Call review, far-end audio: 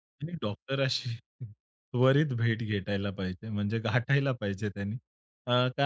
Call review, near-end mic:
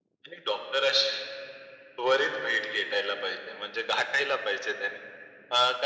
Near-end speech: none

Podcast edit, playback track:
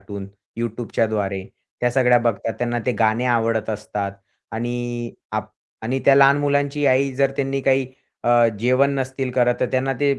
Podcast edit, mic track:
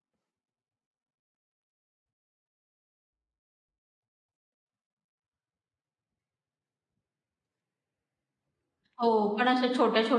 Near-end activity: present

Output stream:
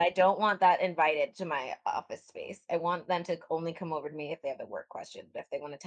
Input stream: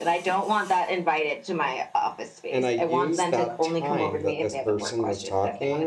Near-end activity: present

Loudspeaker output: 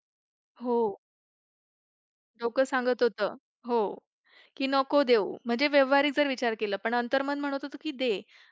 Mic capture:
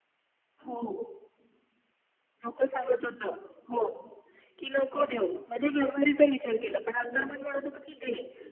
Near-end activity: none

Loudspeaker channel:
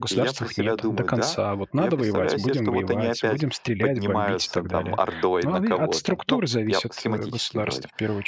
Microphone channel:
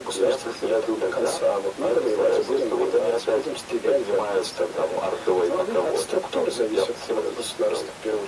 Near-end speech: none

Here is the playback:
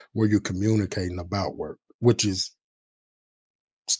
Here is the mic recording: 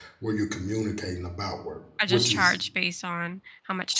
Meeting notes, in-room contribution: present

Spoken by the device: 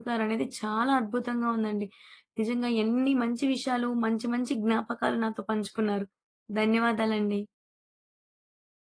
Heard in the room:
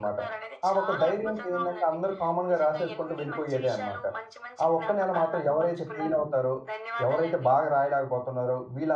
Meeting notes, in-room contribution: present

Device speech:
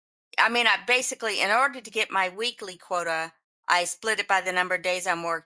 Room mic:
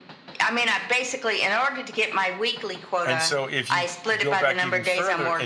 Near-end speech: present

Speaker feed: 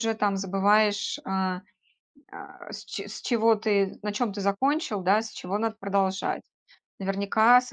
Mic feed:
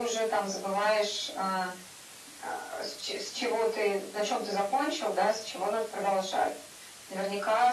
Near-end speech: none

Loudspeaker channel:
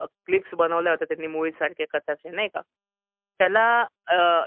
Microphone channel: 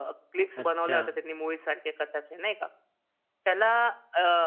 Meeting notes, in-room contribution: present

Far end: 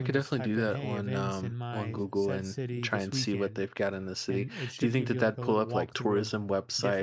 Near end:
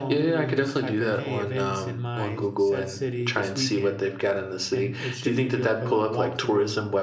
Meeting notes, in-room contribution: none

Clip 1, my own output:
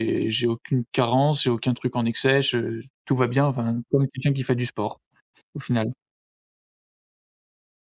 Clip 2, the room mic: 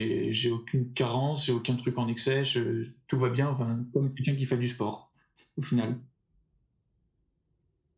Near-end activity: none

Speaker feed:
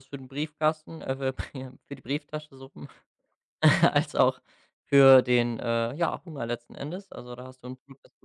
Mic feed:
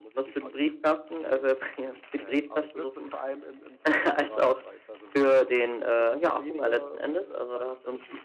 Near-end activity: present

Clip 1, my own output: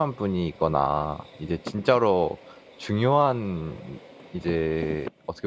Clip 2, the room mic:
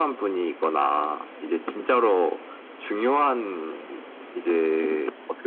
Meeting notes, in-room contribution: none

